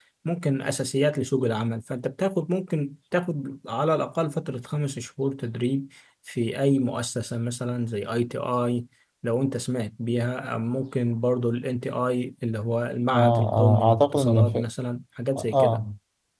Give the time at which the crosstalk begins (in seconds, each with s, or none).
13.1 s